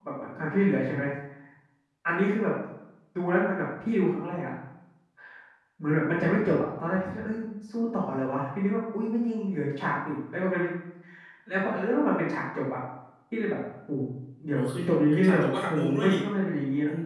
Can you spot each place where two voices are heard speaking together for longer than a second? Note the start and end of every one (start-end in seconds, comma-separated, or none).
14.5-16.2